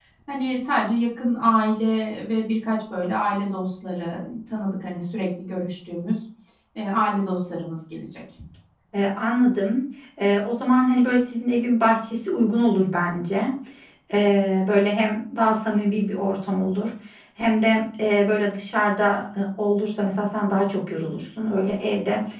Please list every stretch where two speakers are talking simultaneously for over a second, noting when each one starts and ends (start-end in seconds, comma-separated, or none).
none